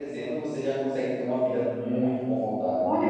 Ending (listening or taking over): taking over